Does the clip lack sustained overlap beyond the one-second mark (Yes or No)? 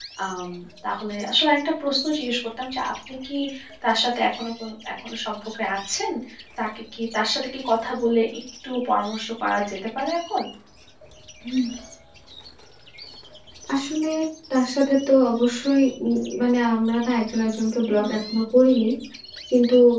Yes